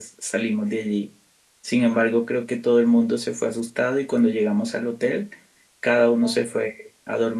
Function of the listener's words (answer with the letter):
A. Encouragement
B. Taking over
A